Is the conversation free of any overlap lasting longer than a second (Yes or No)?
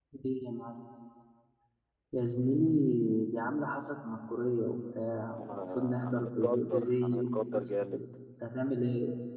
No